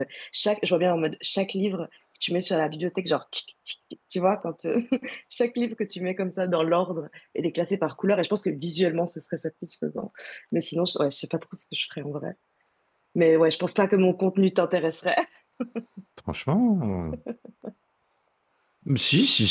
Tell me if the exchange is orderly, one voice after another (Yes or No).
Yes